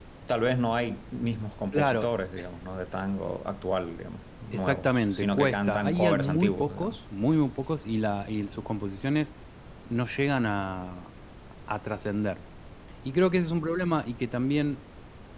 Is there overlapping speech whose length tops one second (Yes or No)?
Yes